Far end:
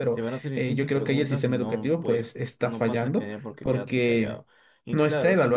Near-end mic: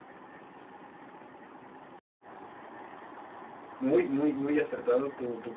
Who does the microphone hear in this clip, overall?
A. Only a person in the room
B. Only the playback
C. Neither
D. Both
A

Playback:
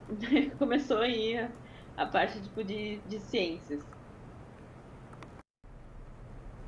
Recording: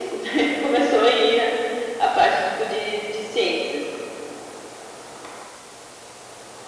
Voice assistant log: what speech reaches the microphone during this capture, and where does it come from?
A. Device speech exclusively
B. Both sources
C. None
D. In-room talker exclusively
A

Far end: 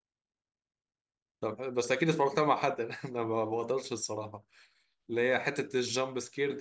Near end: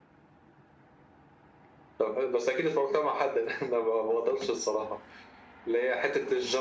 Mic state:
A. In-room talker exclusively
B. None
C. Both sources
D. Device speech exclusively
D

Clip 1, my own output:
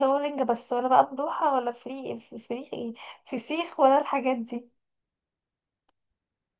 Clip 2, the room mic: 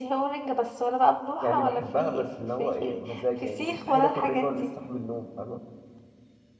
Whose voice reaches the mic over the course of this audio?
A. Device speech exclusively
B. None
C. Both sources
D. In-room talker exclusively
C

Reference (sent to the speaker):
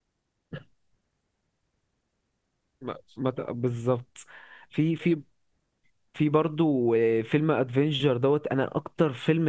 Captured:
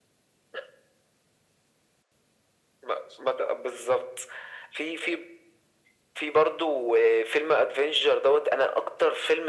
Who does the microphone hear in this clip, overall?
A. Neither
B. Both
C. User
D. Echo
D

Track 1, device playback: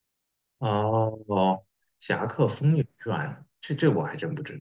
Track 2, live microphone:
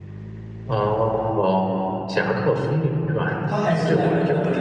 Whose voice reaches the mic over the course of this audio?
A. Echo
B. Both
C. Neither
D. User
B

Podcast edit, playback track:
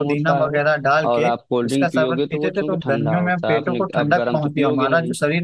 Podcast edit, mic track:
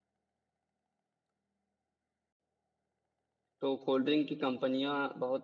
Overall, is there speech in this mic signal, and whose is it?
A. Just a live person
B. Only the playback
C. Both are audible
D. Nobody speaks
A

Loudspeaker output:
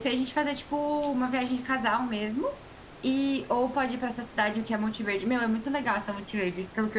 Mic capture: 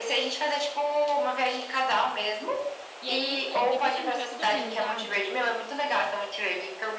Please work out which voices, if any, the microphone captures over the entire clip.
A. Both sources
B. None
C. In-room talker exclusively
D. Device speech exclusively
A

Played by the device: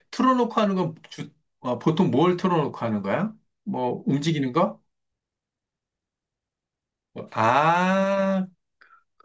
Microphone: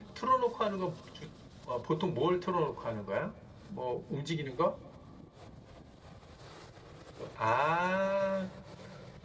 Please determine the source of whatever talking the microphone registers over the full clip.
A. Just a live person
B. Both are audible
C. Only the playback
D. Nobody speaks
C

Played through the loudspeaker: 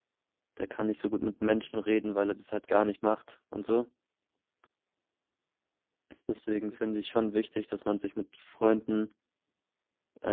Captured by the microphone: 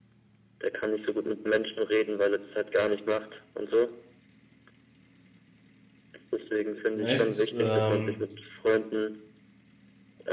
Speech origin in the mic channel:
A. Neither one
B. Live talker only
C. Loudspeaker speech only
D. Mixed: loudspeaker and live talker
D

